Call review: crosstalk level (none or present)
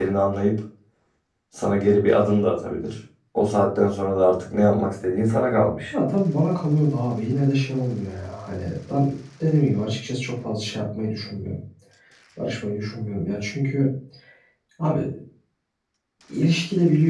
none